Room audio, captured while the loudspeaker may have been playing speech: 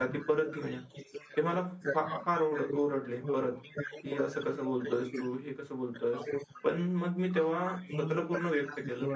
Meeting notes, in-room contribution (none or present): present